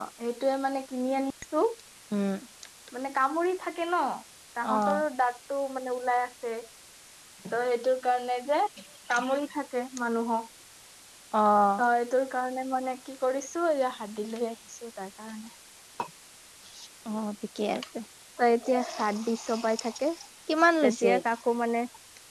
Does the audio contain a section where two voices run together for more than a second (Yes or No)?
No